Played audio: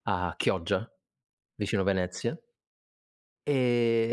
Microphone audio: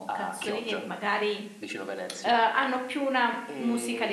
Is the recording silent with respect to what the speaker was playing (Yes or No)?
No